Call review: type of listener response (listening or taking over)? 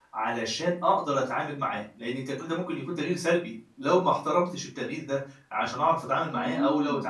listening